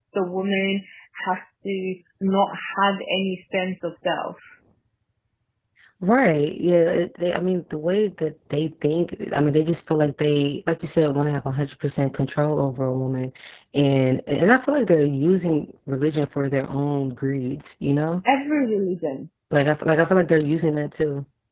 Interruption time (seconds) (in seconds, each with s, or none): none